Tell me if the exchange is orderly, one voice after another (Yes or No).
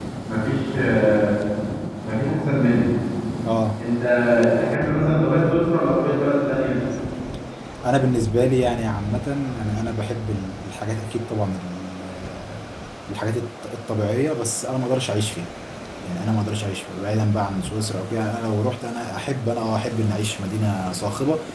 Yes